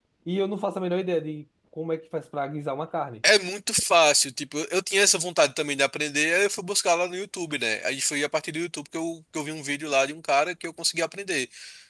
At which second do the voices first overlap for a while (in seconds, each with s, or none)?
none